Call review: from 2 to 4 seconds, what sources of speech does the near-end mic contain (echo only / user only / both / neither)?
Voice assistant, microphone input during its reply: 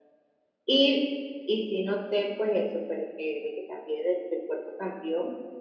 echo only